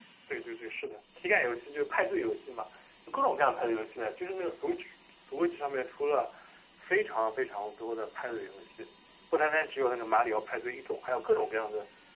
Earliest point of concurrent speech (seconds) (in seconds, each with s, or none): none